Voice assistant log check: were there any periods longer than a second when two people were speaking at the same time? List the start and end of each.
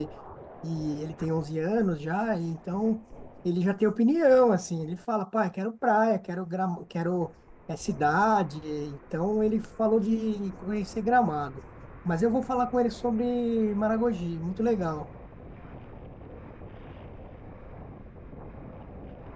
none

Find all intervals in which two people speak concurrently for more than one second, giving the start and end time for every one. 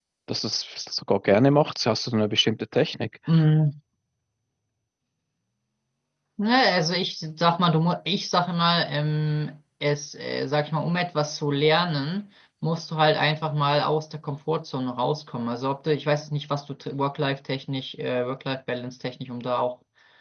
none

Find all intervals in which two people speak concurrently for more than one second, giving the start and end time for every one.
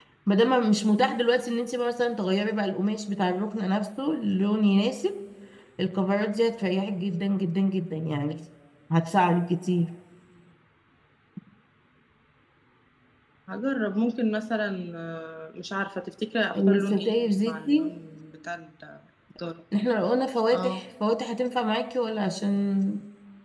16.6-17.9

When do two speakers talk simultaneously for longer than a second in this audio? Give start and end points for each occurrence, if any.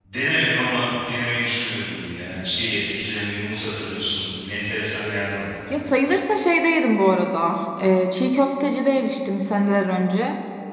none

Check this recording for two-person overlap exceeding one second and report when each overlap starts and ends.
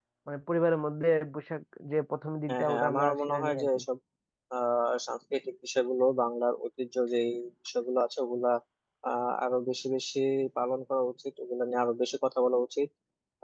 2.5-3.8

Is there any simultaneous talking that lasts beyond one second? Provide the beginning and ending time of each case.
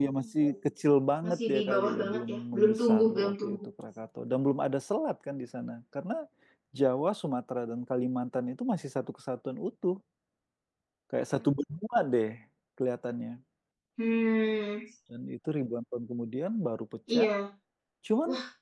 1.2-3.6

